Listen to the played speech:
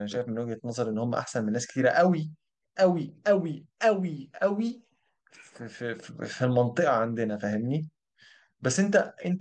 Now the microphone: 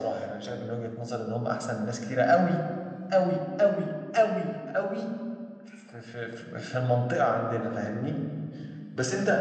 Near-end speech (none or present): none